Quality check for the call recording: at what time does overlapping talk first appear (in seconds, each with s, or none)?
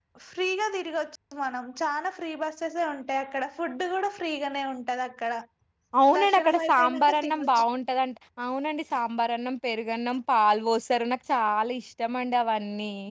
6.2 s